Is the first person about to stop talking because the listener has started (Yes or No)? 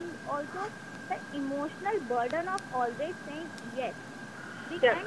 Yes